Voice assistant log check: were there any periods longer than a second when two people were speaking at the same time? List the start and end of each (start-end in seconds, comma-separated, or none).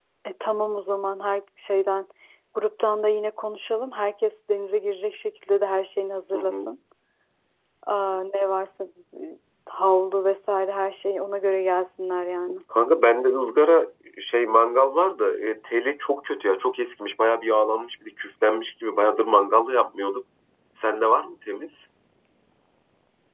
none